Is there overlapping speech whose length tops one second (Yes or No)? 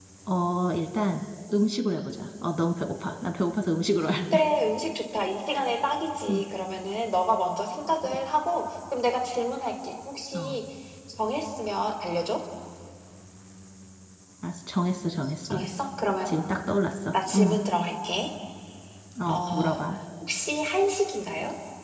No